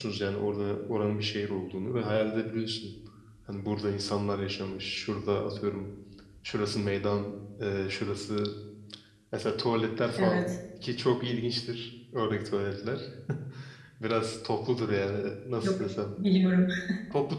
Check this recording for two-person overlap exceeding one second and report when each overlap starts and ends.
none

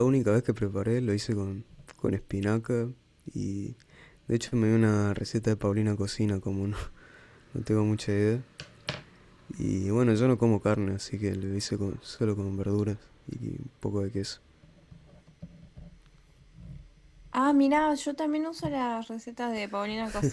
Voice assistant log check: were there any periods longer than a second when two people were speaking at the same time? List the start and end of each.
none

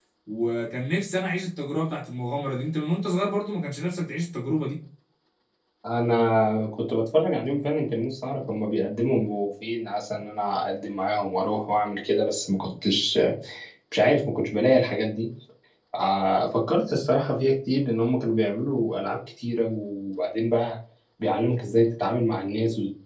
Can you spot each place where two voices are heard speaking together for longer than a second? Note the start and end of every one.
none

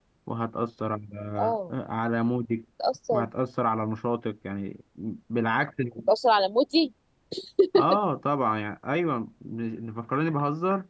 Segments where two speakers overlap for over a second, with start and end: none

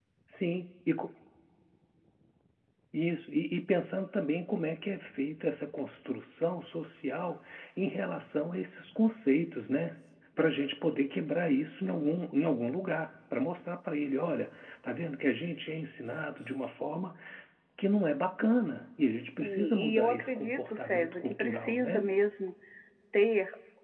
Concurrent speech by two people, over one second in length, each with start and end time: 19.4-22.1

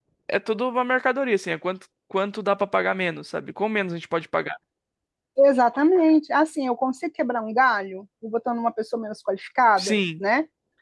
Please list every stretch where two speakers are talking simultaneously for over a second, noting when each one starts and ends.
none

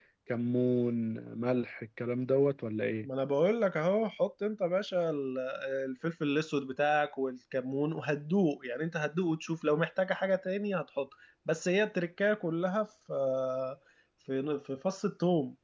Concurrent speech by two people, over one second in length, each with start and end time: none

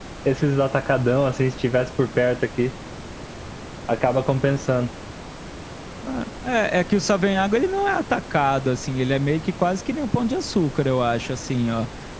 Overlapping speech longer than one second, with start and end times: none

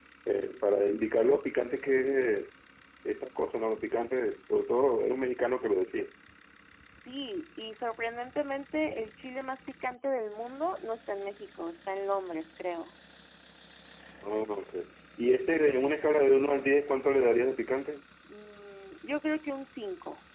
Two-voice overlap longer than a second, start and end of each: none

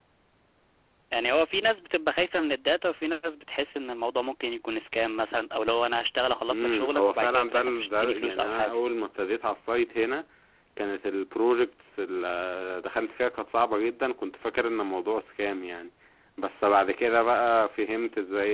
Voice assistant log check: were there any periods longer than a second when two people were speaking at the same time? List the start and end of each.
6.5-8.8

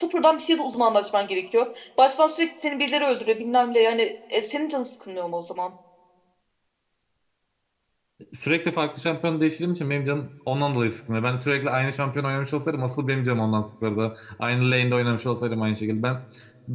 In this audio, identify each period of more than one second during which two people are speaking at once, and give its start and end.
none

